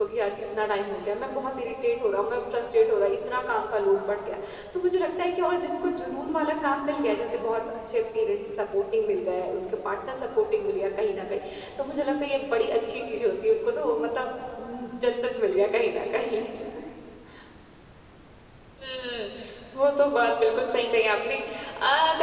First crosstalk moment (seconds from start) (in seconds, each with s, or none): none